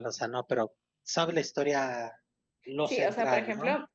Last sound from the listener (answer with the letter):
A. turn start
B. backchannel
A